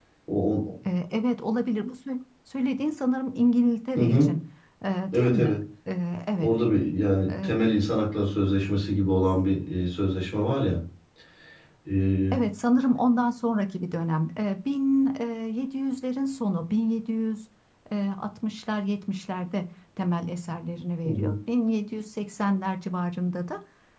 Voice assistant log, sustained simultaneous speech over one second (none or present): none